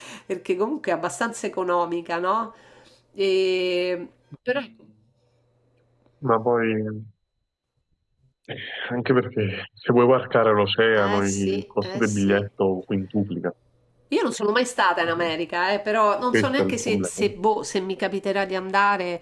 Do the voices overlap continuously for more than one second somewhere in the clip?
Yes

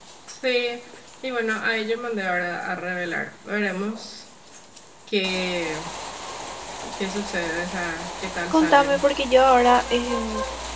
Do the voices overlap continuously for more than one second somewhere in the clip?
No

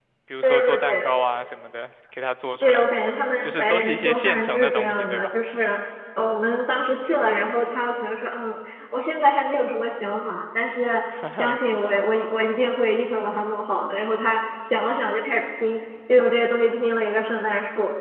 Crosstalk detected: Yes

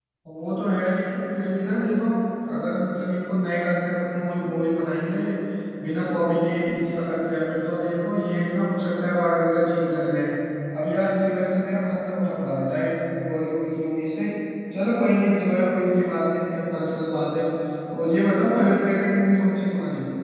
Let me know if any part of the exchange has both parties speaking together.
No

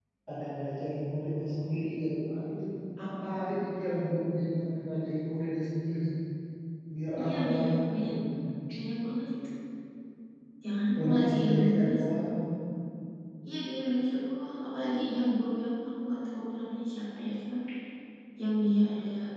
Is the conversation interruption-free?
No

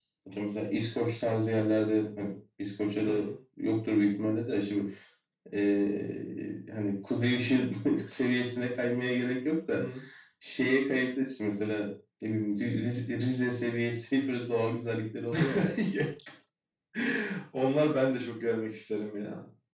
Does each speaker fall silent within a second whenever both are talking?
Yes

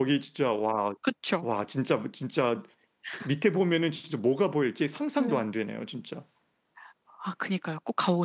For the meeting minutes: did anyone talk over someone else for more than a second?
No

